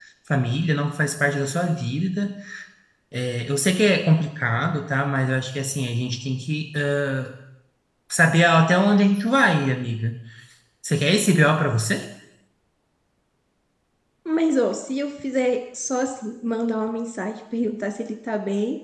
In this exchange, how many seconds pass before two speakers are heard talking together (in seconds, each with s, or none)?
none